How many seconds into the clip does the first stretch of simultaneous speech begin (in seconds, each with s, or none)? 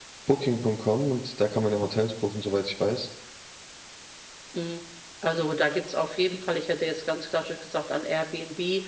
none